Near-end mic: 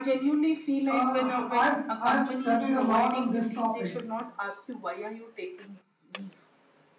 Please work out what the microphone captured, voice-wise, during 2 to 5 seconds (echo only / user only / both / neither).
both